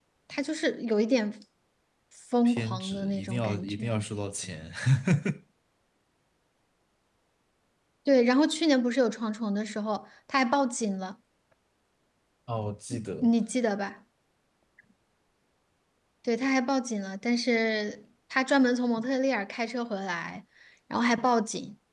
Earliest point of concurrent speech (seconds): 2 s

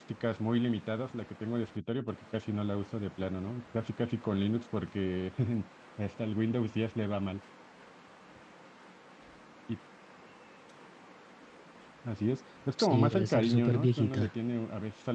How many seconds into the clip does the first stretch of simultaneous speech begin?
13 s

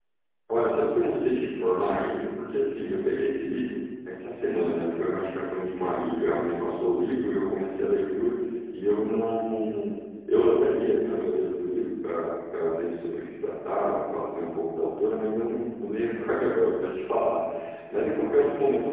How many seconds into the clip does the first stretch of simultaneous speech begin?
none

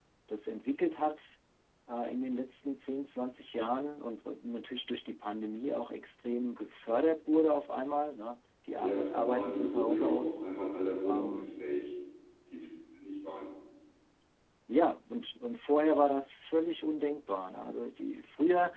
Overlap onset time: 9 s

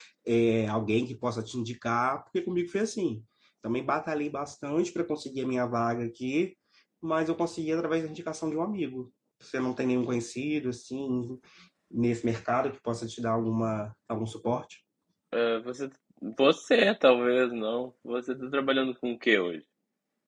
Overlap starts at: none

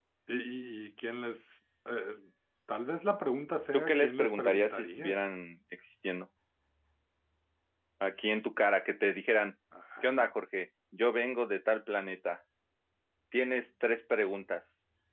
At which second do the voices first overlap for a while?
4 s

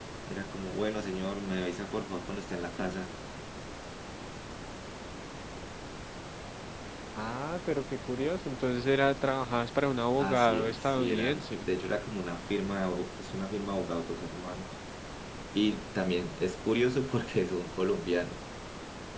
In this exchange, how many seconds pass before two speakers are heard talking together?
10 s

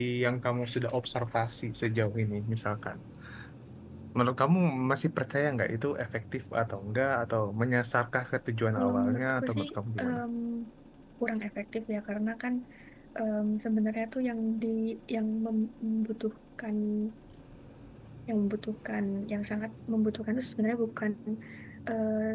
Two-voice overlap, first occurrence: 9 s

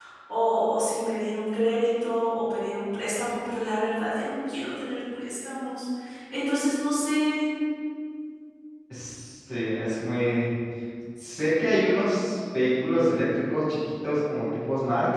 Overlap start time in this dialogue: none

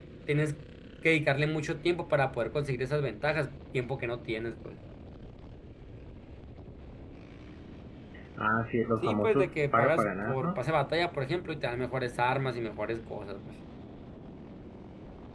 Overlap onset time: 9 s

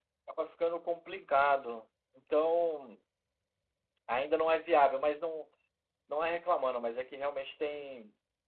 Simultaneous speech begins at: none

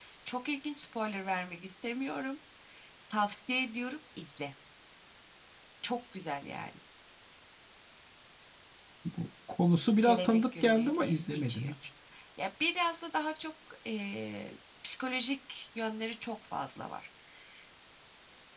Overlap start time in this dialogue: 10 s

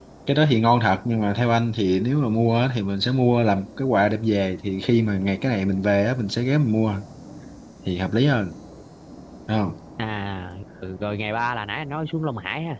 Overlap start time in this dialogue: none

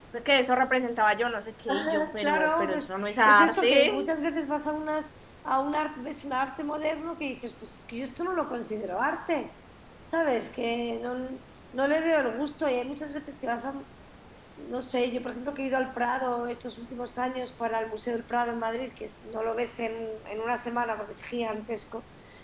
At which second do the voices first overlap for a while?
2 s

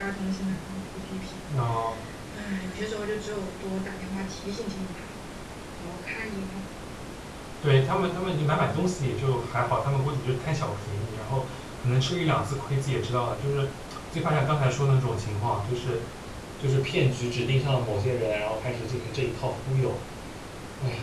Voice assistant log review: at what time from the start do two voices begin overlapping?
none

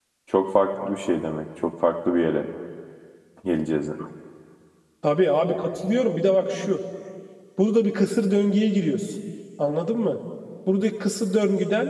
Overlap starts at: none

